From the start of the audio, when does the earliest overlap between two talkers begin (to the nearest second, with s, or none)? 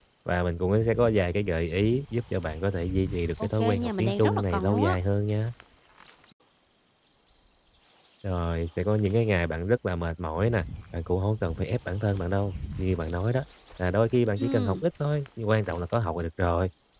3 s